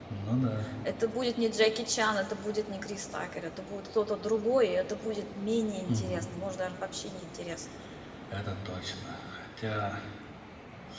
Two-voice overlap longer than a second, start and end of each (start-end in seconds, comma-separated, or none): none